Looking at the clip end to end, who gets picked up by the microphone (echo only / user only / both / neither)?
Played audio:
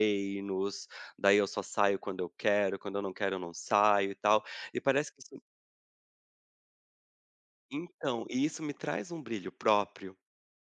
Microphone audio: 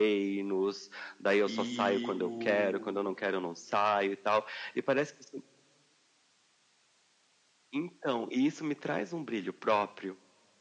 both